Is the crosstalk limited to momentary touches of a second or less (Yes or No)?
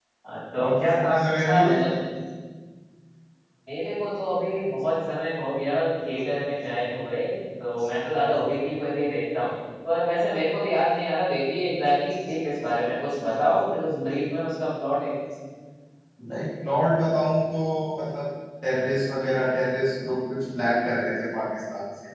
No